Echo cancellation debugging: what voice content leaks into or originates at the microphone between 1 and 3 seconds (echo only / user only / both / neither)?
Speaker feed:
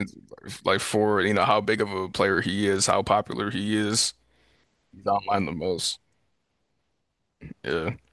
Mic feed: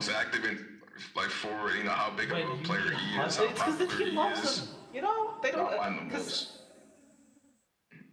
both